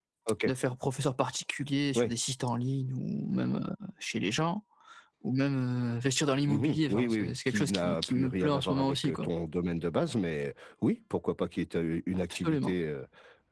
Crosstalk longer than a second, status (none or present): present